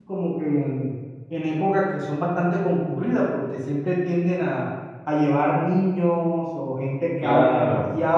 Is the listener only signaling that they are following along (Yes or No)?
Yes